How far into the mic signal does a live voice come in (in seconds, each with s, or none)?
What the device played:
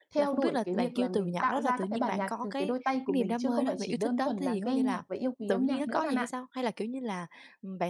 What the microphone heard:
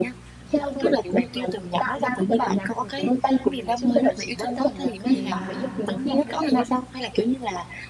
5.1 s